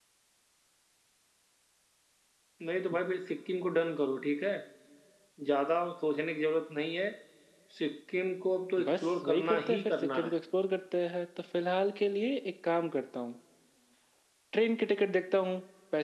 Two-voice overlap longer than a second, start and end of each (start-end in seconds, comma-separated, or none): 8.8-10.3